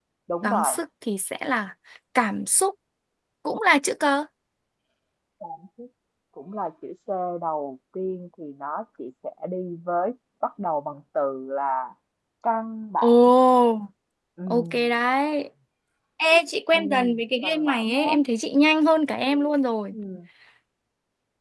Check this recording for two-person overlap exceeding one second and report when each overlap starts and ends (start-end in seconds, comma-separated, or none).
16.7-18.1